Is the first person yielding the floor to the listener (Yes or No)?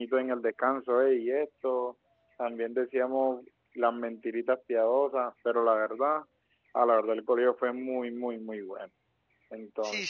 Yes